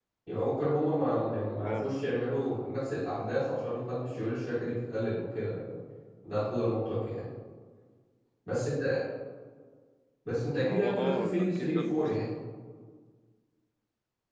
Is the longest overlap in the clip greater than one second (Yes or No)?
Yes